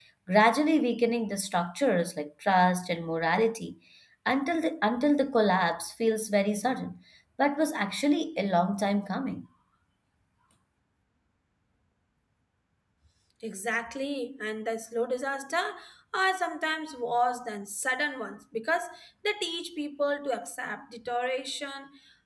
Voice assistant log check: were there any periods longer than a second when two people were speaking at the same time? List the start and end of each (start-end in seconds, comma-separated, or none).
none